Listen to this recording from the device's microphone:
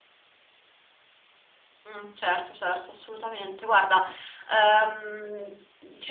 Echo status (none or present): none